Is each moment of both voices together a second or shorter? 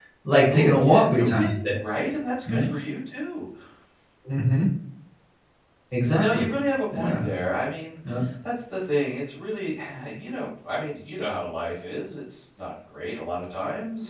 No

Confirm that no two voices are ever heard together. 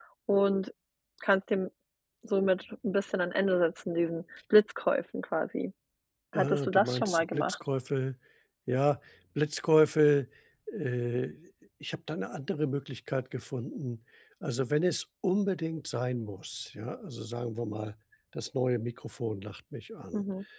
No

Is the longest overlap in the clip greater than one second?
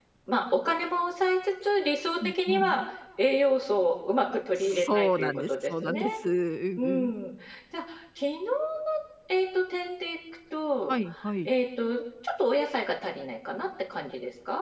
Yes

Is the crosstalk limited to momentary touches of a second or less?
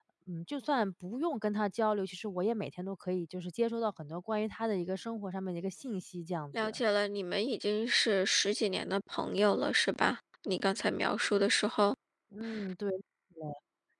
Yes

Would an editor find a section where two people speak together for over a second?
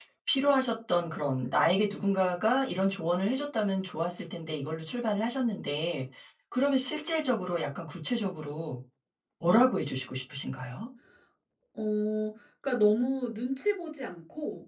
No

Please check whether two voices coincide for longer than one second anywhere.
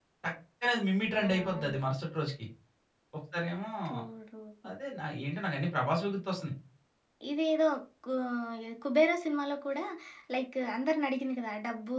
No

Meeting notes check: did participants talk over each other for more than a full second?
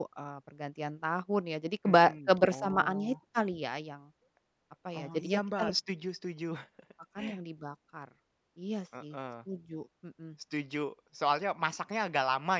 Yes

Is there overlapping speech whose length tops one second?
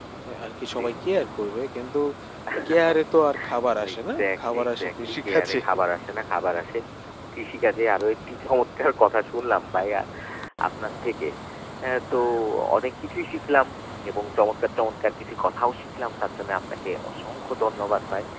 Yes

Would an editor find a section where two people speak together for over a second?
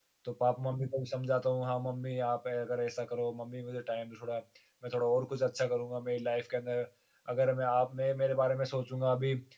No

